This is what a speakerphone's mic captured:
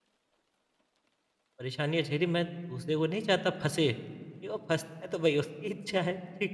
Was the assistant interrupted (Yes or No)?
Yes